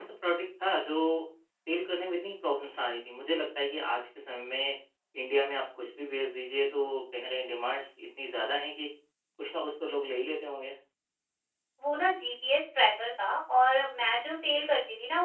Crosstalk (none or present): none